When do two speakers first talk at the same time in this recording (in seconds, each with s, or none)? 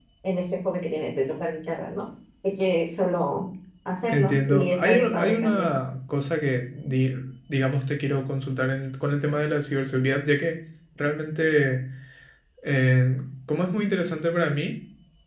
4.1 s